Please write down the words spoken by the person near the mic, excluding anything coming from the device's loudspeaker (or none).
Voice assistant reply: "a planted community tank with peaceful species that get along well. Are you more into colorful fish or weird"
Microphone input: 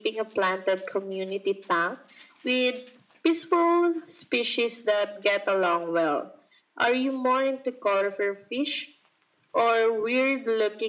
none